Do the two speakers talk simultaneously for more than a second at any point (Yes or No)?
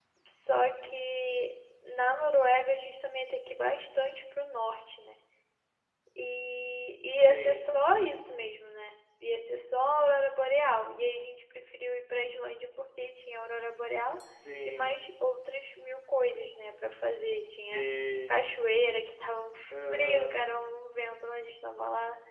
No